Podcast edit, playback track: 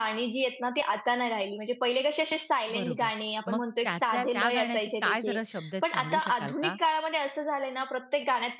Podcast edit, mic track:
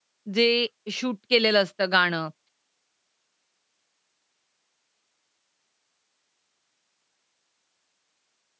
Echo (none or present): none